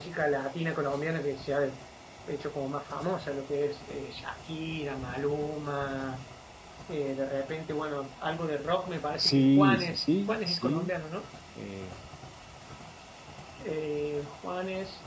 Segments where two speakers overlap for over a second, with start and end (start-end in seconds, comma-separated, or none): 9.2-10.9